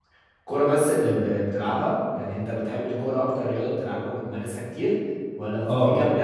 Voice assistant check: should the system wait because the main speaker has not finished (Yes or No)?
Yes